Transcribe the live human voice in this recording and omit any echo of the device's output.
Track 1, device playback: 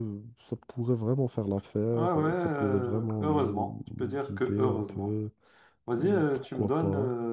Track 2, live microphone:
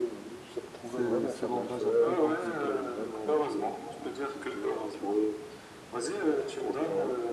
ce, ce langage un peu compliqué.

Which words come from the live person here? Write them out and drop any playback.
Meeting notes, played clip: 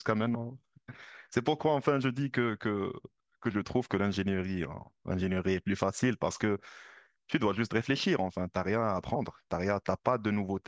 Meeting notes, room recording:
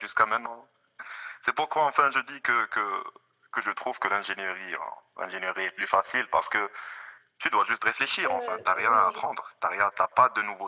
Euh, oui, je-

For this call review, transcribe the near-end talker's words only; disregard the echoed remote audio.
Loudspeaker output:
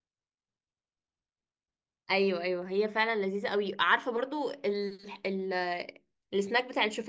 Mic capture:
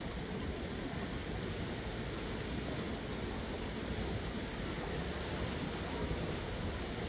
none

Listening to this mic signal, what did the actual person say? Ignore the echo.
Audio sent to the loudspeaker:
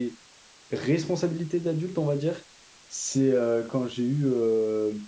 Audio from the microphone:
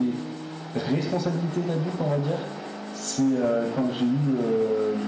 none

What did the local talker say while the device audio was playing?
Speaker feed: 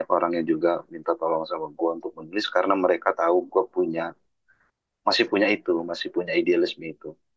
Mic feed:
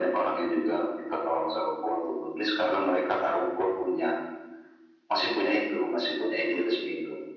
none

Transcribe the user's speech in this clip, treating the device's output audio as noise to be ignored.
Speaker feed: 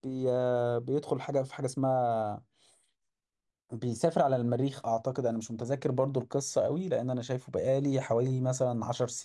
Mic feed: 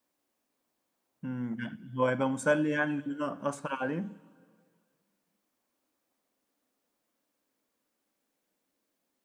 امم يعني هو هيبقى مسلي يعني ان انا اسهر عليه

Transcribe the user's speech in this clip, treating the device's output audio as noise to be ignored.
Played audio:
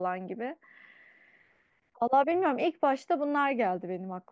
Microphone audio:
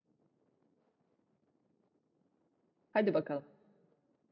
Hadi bakalım.

